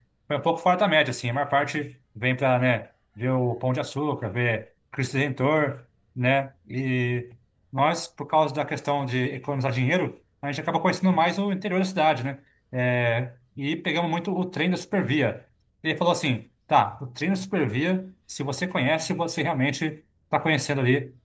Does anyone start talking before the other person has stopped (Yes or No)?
No